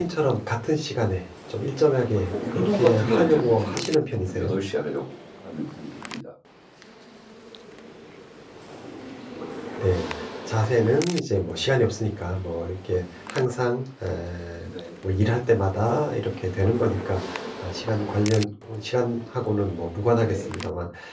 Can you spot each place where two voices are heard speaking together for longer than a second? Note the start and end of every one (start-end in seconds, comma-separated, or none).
2.3-4.6